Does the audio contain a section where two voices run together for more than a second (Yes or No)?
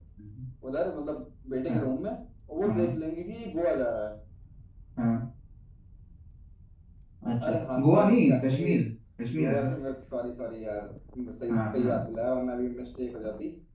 Yes